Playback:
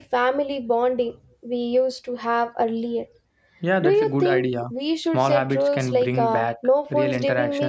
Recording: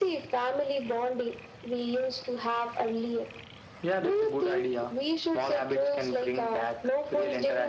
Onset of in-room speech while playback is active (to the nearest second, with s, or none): none